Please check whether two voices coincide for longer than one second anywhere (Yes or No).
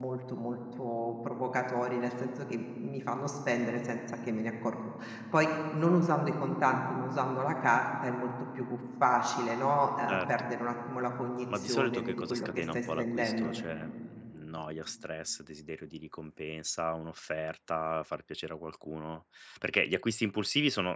Yes